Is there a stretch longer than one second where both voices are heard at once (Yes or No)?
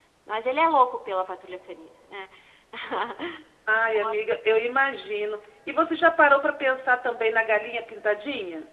No